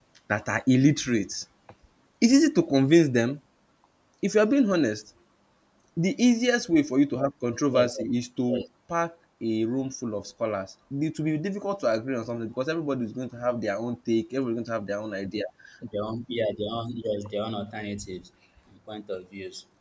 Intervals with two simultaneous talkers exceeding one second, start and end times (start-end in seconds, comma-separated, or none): none